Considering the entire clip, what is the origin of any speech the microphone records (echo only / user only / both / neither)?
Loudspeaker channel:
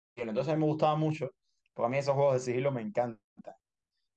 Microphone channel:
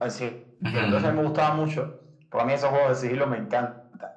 both